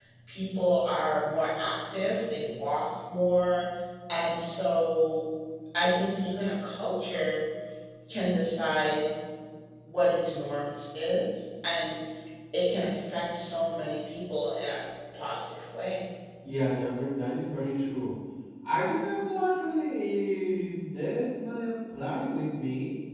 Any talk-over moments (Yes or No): No